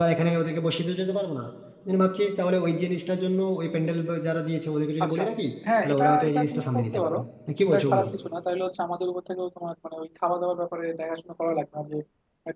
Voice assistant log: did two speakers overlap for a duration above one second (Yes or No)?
Yes